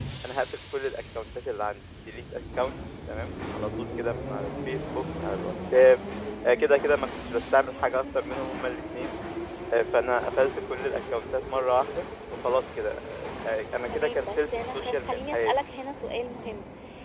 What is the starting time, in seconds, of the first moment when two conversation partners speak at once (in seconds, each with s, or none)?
13.9 s